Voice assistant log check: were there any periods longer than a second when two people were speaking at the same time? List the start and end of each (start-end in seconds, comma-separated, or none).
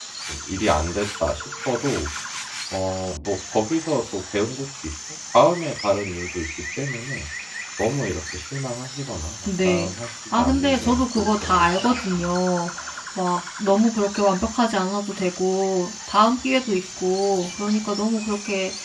10.4-12.2